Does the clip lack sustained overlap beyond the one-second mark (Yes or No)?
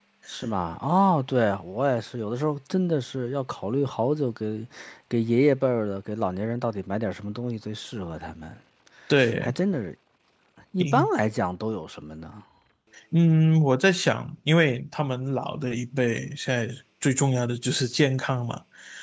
Yes